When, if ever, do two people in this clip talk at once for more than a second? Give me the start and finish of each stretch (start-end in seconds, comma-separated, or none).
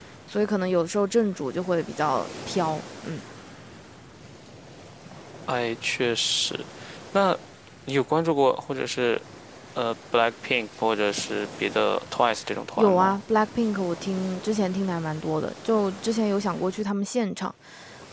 none